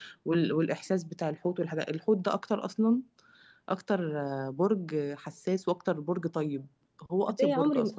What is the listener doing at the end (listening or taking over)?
taking over